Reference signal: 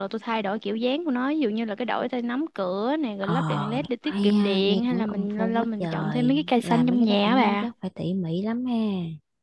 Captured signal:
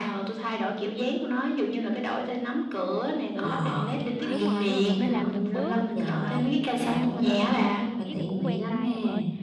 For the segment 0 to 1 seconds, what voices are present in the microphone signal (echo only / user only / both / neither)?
echo only